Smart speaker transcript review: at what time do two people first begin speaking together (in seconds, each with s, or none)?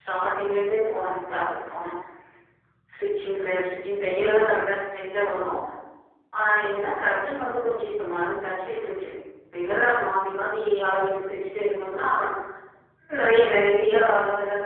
none